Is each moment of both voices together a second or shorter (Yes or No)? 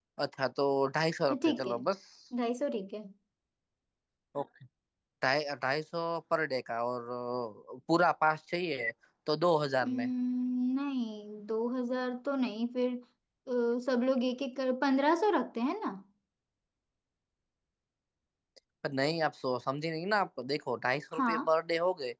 Yes